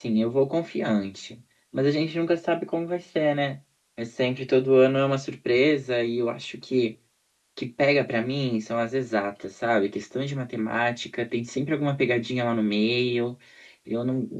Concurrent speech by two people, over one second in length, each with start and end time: none

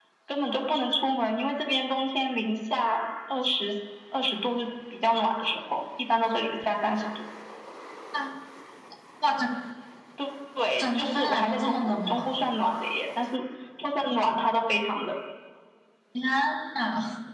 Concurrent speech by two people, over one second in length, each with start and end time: 10.8-12.4

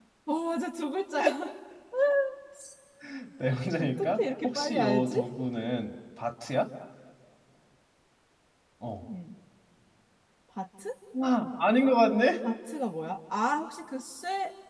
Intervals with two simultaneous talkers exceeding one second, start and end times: 3.8-5.2

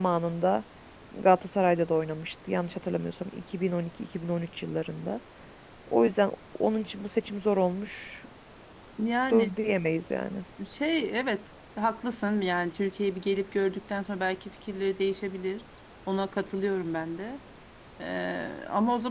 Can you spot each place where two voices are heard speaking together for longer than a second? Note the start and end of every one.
none

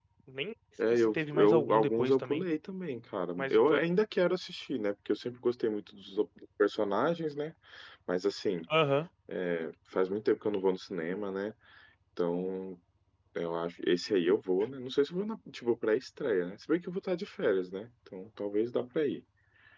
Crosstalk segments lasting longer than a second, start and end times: 0.9-2.5

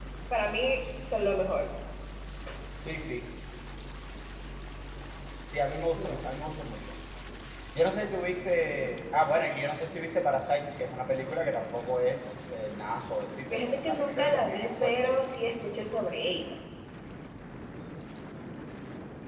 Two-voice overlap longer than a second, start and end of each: 13.5-15.2

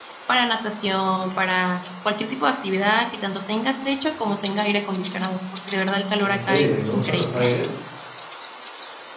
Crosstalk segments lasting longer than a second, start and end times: 6.2-7.4

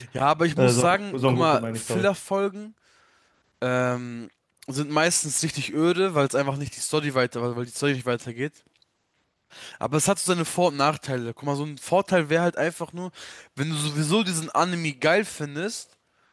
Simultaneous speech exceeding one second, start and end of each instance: 0.6-2.1

